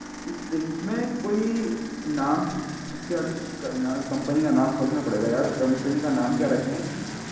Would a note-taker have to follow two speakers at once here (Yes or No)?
No